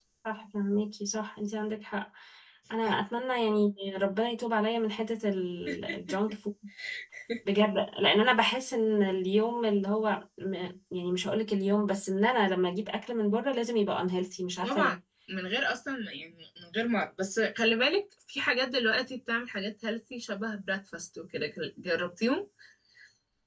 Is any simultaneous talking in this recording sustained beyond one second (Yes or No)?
No